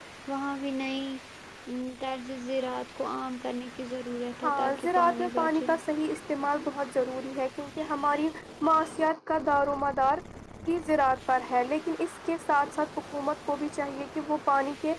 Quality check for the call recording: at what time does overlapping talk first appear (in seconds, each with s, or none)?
4.4 s